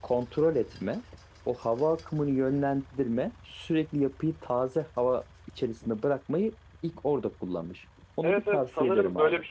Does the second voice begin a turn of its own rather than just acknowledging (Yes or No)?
Yes